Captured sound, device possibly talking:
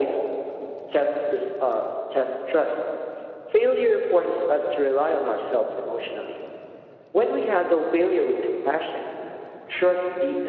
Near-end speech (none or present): none